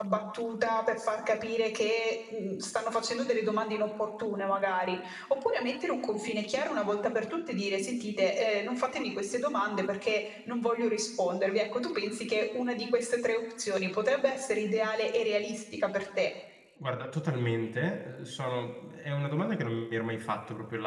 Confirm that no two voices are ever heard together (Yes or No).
Yes